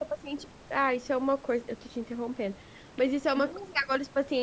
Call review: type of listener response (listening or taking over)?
listening